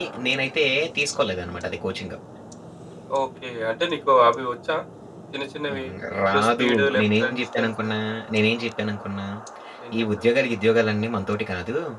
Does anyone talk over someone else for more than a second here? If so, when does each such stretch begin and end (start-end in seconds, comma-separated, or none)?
6.3-7.7